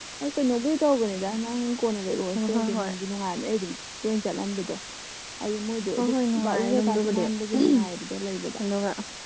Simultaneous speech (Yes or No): Yes